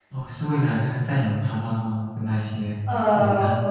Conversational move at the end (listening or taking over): taking over